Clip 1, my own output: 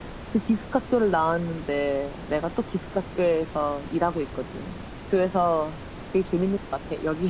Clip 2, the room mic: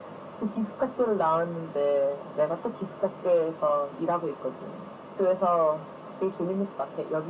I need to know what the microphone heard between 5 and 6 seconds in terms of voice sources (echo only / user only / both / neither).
echo only